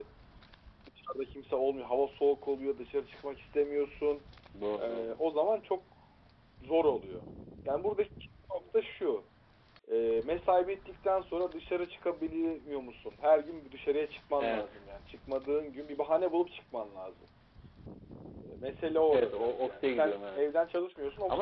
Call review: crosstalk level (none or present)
present